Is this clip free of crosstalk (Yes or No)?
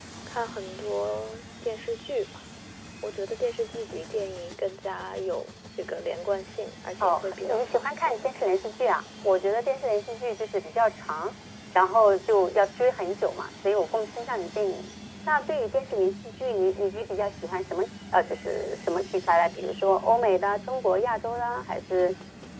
No